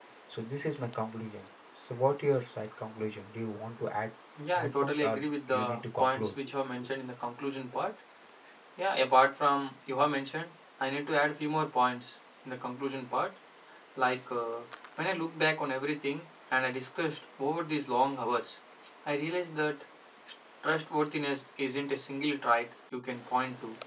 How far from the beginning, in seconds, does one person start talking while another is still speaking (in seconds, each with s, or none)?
4.5 s